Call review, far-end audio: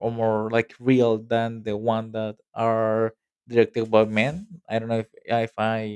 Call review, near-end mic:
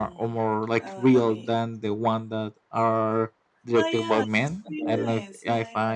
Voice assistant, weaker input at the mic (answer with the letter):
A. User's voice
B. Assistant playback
A